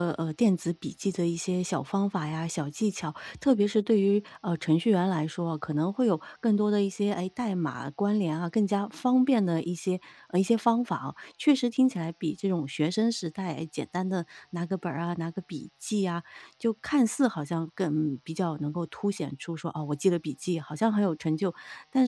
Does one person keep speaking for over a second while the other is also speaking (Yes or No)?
No